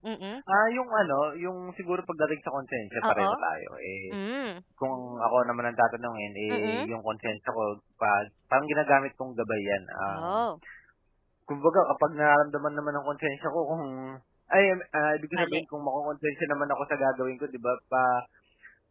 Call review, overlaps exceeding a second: none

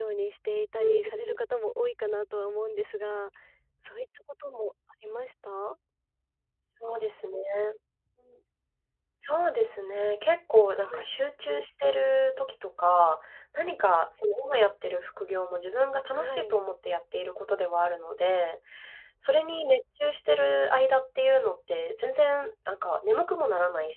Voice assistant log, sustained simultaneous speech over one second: none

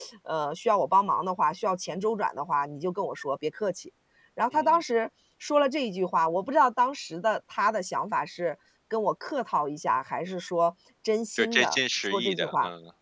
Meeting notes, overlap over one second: present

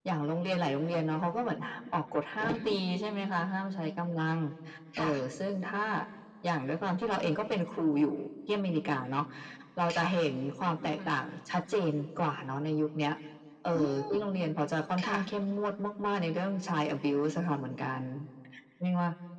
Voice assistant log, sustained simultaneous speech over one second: none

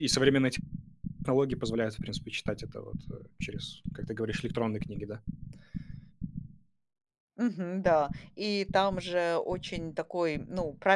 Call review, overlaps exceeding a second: none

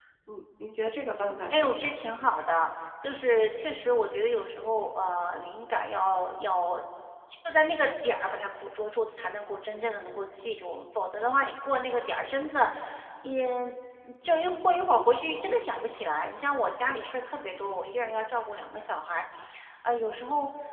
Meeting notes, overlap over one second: none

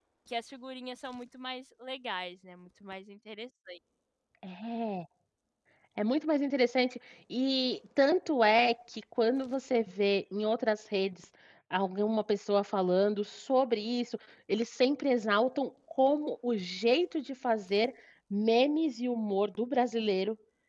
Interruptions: none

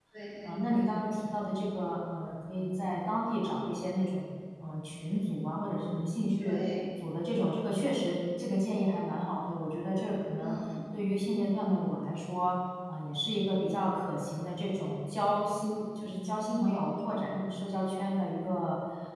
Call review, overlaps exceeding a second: none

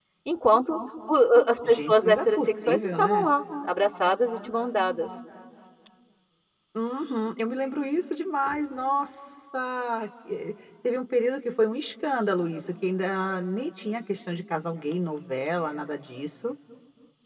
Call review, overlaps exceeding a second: present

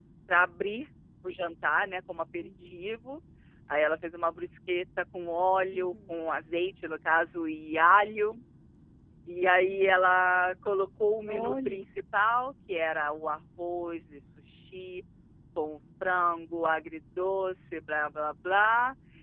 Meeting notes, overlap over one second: none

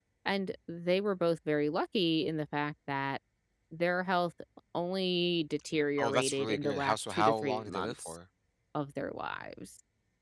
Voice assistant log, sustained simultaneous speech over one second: present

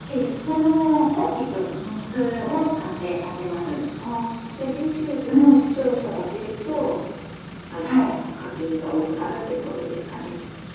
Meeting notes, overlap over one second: none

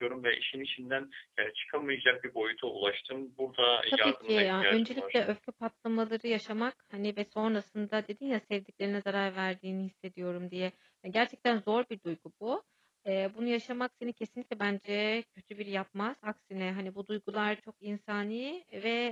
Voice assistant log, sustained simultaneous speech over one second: present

